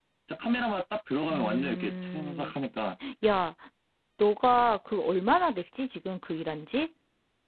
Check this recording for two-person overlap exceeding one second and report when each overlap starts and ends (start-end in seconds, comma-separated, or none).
1.3-2.5